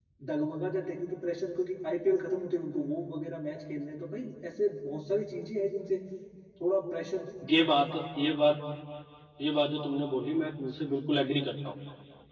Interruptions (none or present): none